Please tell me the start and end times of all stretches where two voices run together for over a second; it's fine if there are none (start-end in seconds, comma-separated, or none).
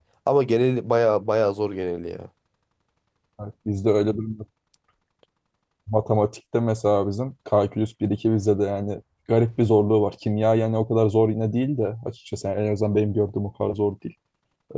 none